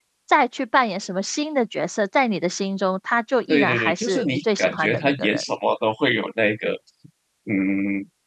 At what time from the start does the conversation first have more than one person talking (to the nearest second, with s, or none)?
3 s